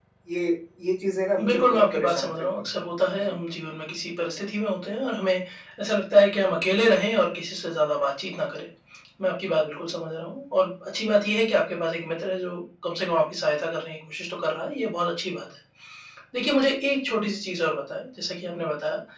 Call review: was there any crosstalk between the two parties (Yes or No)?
Yes